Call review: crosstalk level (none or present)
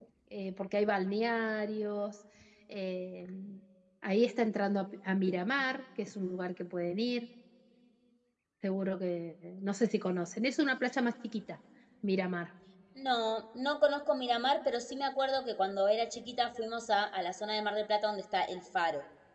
none